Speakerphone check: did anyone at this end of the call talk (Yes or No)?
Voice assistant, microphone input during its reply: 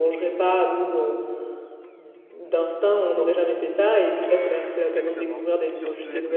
Yes